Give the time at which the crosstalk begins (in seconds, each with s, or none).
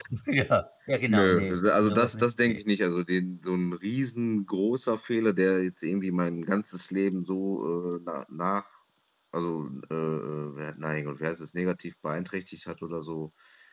1.1 s